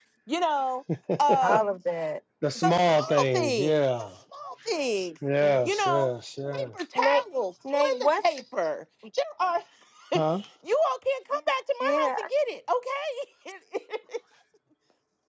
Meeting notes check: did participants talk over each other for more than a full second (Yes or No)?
Yes